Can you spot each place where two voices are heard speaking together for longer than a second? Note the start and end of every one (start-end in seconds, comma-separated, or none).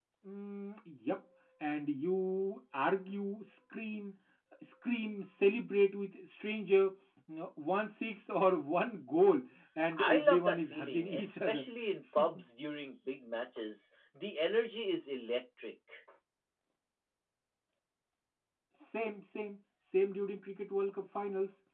9.9-11.7